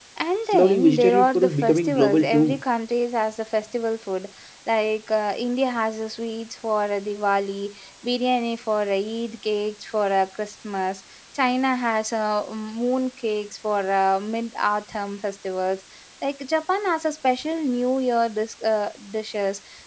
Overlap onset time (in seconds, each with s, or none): 0.5 s